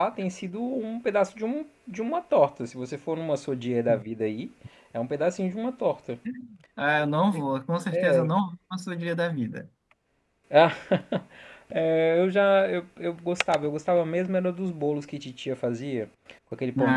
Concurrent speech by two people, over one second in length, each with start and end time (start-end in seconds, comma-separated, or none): none